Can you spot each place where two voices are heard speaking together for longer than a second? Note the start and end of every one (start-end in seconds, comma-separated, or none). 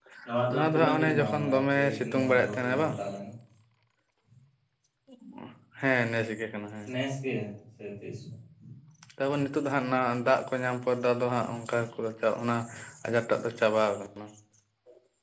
0.5-2.9